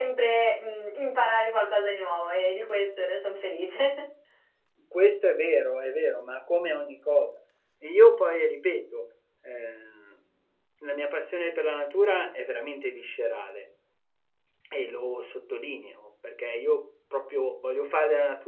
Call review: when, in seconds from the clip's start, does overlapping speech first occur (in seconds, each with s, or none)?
none